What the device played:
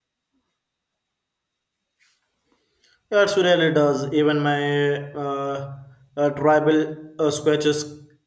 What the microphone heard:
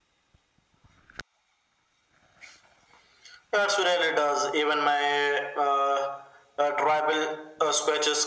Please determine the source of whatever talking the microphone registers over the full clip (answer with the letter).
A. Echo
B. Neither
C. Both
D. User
A